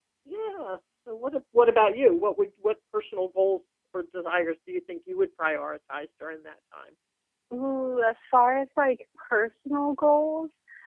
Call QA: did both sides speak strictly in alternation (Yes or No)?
Yes